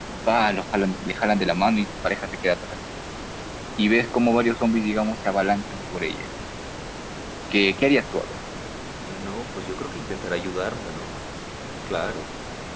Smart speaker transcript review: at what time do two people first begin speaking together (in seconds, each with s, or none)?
none